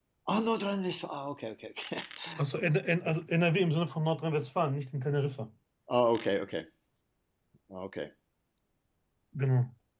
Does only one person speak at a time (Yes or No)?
Yes